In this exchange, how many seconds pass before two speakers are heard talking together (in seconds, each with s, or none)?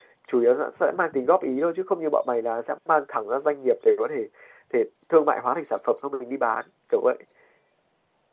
none